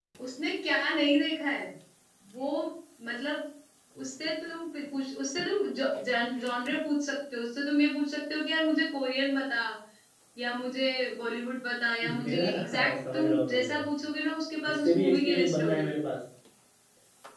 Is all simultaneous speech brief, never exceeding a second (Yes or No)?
No